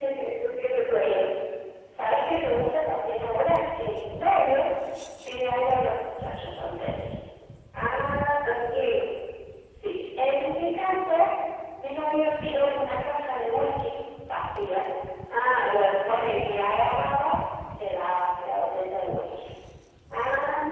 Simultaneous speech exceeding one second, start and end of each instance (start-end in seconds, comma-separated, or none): none